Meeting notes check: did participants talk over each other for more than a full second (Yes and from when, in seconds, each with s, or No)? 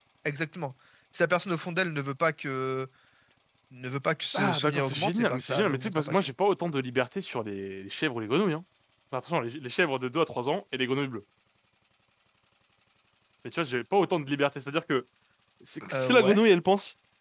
Yes, from 4.3 s